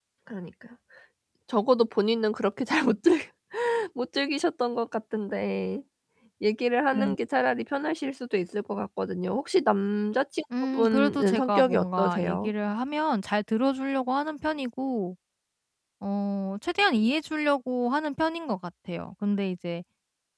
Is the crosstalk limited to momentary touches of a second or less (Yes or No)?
No